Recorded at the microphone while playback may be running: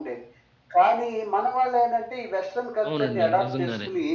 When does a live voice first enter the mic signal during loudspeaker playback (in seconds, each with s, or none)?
2.9 s